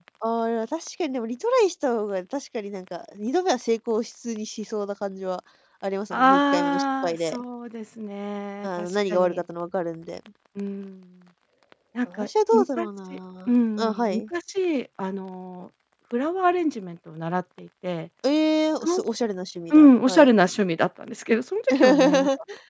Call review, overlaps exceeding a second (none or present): present